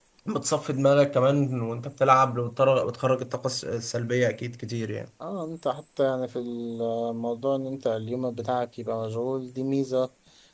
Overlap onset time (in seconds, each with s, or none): none